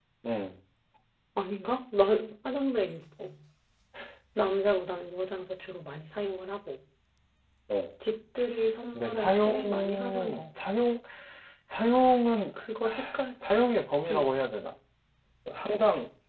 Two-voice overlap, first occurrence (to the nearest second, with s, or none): 9 s